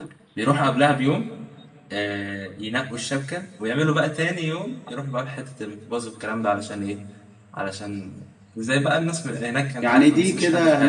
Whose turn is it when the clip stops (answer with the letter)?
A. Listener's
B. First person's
A